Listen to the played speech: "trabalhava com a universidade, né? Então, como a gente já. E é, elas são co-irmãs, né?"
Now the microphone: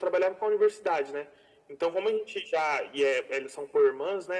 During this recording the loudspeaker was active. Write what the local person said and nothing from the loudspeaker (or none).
none